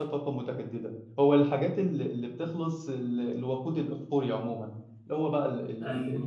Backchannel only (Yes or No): Yes